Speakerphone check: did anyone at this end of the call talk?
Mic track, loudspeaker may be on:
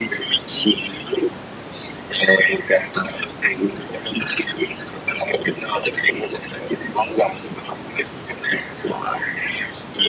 No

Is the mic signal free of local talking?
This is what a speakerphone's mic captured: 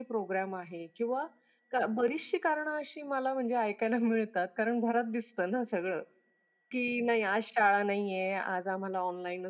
Yes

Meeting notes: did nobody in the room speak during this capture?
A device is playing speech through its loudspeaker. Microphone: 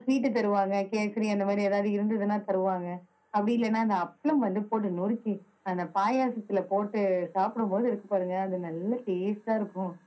Yes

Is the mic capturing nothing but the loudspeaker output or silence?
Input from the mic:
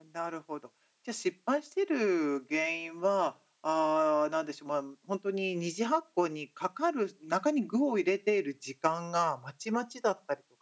Yes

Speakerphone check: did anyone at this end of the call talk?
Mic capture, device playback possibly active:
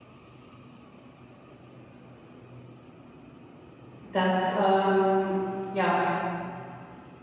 Yes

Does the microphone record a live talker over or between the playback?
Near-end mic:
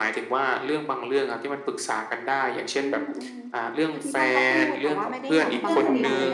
Yes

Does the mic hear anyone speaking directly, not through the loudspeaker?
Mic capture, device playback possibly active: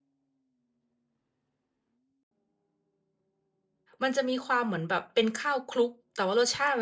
Yes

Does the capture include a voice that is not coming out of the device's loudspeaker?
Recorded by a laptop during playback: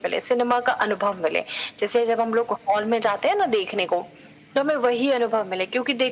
No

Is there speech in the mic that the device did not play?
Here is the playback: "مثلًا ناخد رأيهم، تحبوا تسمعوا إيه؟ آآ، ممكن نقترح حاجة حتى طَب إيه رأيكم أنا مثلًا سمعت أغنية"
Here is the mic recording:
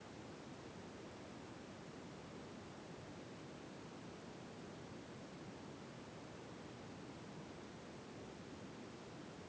No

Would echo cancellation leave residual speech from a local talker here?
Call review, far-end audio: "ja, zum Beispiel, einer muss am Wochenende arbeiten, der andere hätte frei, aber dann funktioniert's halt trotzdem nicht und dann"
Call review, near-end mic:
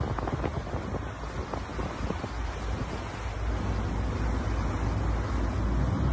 No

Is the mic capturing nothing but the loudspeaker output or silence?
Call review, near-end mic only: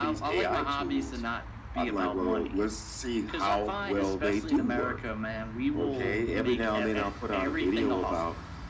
Yes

